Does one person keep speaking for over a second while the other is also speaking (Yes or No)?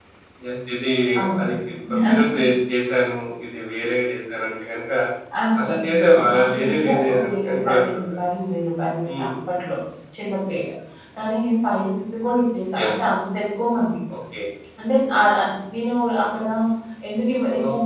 Yes